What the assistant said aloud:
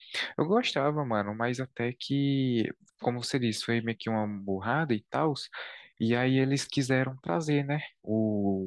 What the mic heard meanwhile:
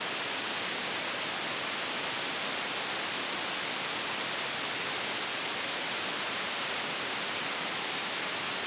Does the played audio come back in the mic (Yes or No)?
No